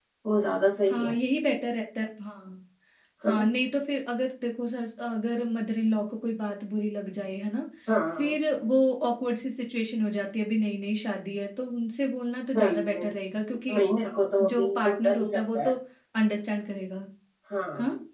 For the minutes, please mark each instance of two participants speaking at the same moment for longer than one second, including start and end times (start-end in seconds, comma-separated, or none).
13.7-15.7